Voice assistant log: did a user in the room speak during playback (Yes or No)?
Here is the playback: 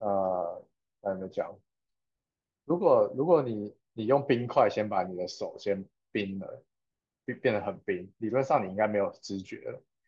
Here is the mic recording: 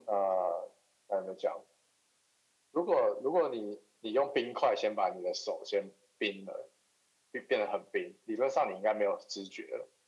No